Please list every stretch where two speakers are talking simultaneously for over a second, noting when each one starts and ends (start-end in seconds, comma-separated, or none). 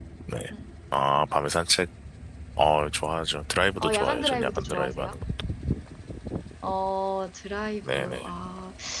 3.8-5.2